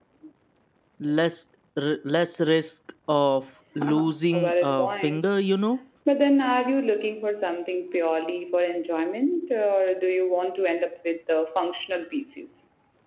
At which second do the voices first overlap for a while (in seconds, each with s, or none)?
3.8 s